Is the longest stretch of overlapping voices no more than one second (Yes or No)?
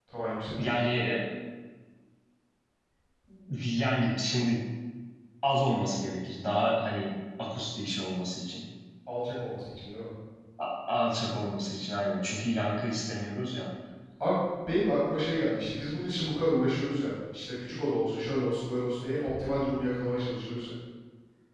Yes